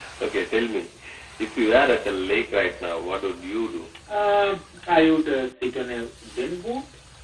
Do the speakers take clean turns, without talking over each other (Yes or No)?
Yes